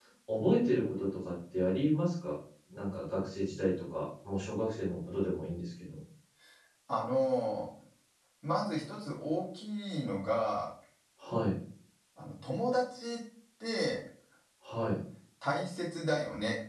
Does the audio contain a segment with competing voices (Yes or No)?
No